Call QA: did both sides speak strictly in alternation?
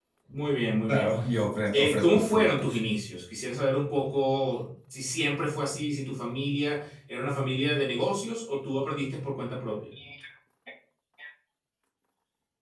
No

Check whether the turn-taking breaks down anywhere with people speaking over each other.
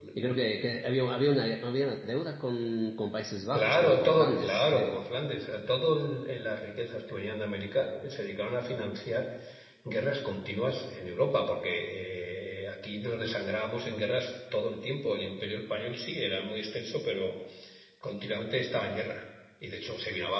Yes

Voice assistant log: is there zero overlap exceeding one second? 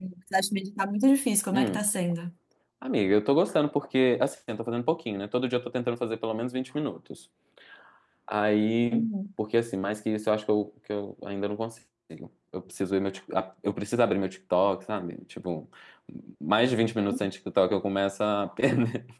Yes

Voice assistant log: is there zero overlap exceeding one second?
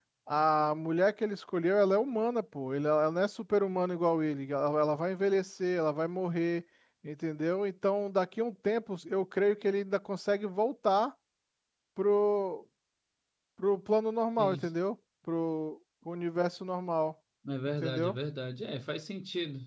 Yes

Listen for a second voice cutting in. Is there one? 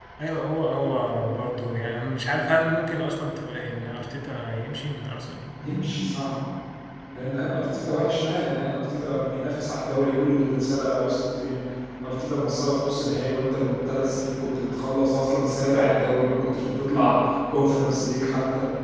No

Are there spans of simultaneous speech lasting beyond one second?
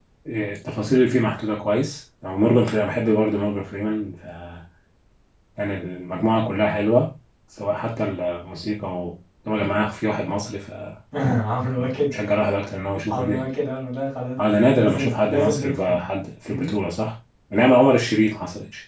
Yes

